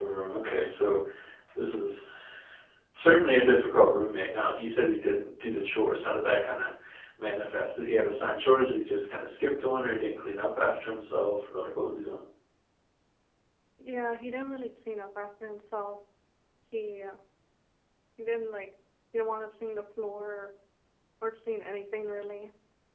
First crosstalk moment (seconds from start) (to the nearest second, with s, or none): none